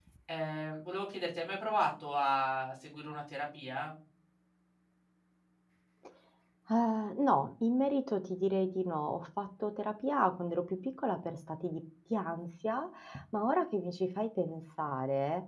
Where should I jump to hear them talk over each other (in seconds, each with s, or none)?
none